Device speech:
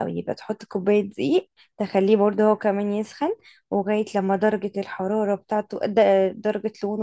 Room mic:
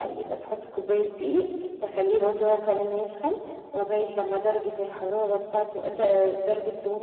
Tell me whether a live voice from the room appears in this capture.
No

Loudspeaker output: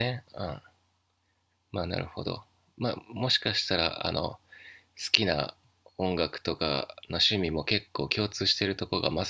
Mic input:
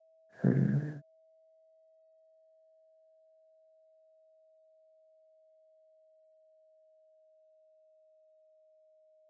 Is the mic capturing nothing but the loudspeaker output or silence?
No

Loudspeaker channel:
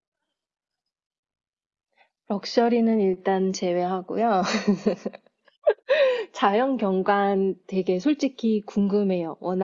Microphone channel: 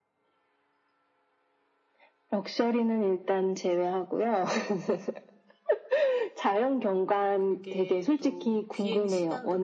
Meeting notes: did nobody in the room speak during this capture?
No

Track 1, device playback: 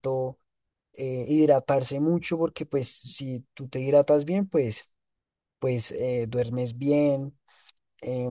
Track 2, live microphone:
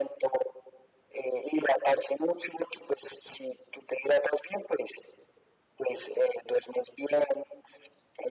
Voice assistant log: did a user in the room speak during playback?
No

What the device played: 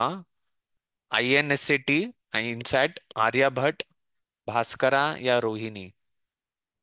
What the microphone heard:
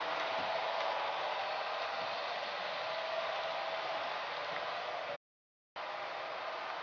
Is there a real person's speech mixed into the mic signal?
No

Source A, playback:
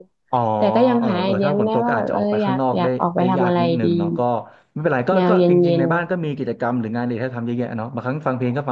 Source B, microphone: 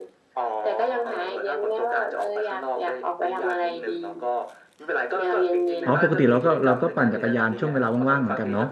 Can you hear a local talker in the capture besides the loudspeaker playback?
Yes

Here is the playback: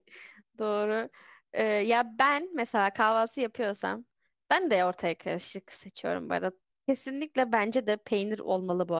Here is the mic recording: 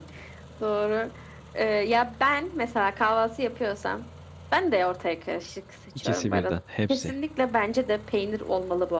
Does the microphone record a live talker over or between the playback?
Yes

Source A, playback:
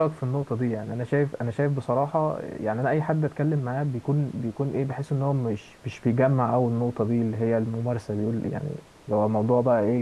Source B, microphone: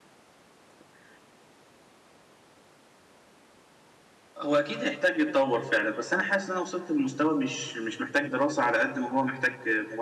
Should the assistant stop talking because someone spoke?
Yes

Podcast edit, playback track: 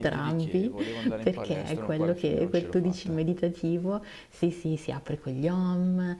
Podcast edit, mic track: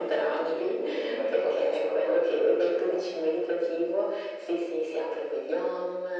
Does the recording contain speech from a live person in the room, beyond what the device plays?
No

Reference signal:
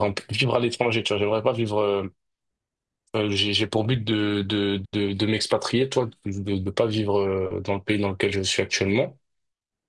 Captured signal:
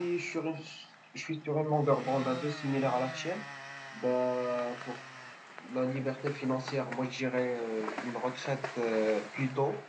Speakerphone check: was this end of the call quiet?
No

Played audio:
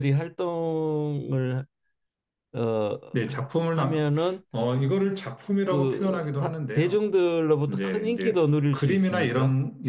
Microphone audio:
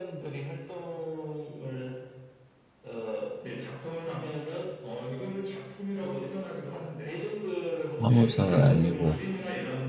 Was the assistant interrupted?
Yes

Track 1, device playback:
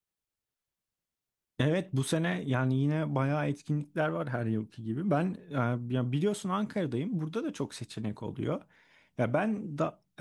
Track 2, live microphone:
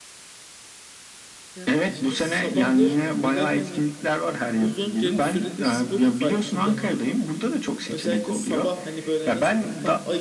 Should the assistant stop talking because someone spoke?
Yes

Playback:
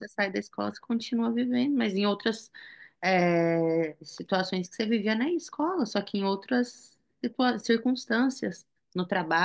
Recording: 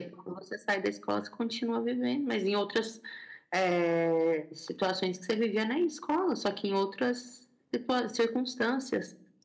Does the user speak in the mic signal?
No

